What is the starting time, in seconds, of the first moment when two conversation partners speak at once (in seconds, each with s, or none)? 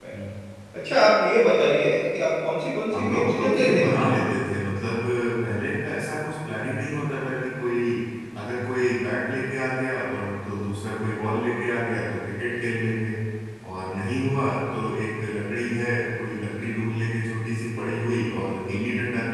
2.9 s